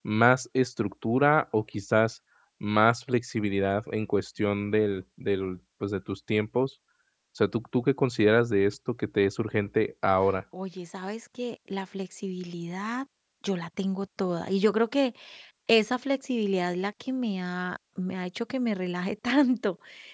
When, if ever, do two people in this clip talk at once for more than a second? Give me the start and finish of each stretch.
none

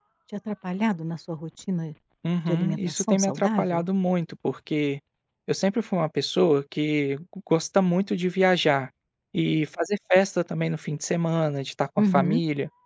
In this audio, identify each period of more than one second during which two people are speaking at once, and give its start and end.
2.5-3.8

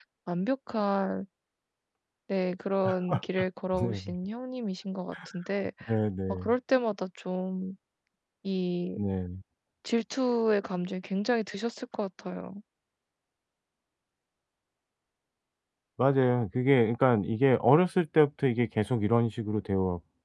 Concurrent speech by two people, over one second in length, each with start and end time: none

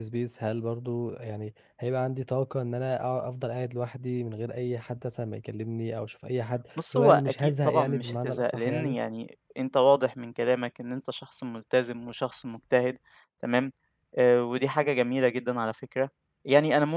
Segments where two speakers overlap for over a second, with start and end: 6.9-9.0

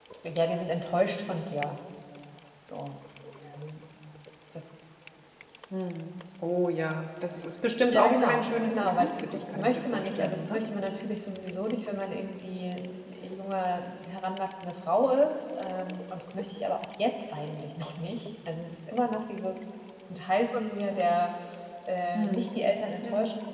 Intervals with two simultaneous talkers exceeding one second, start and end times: 7.9-10.6

